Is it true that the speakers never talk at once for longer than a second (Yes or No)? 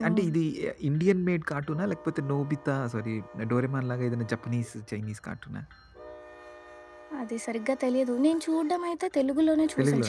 Yes